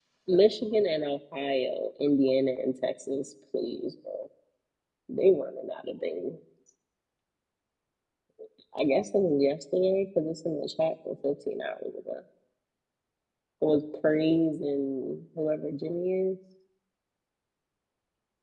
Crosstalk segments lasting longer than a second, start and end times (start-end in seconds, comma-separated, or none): none